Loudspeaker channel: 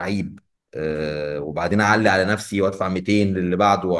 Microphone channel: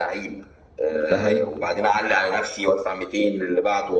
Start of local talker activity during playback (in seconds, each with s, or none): 1.1 s